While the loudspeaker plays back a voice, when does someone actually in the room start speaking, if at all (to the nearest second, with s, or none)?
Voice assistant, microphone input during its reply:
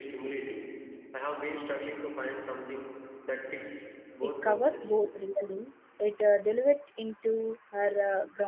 4 s